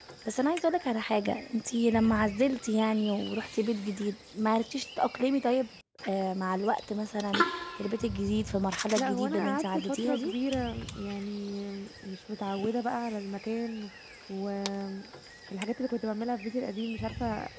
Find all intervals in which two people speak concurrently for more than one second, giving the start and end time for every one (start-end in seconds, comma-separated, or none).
9.0-10.3